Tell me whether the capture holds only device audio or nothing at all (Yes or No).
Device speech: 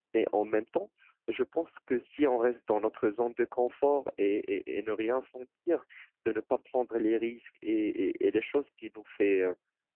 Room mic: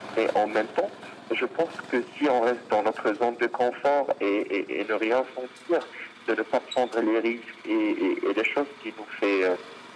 Yes